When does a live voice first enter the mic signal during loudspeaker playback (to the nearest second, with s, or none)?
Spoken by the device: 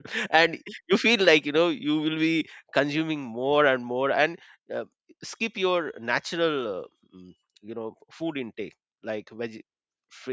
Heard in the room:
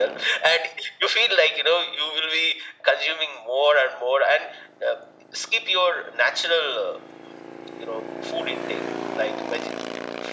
none